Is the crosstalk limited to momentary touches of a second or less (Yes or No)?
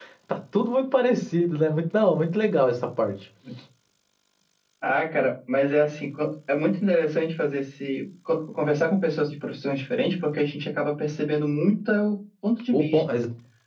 Yes